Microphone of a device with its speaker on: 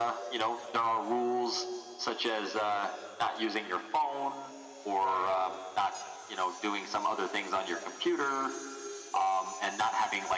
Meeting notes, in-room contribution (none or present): present